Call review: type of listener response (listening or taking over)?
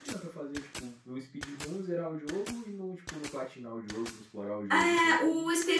taking over